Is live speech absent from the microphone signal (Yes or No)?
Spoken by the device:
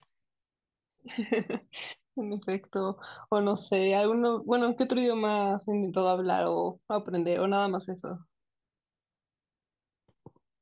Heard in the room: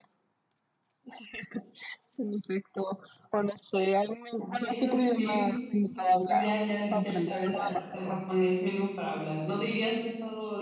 No